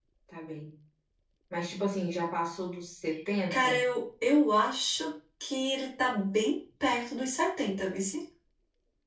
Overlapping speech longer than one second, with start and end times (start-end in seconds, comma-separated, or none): none